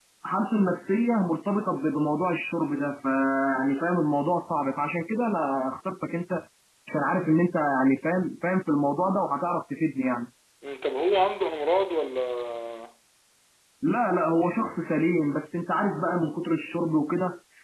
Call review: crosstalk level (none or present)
none